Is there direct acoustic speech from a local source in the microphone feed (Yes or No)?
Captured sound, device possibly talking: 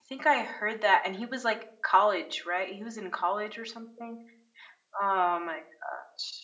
Yes